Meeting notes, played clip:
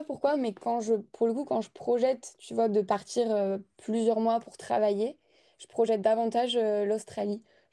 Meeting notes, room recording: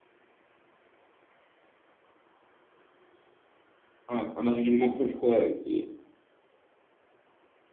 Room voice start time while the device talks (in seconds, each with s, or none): 4.1 s